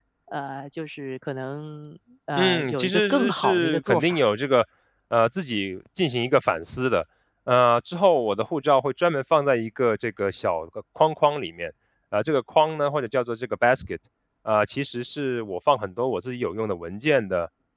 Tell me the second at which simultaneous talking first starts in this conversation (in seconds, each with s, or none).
2.4 s